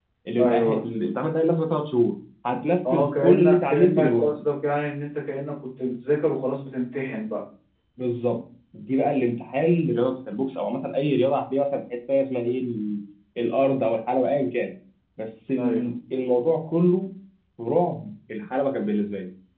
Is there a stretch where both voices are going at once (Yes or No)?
Yes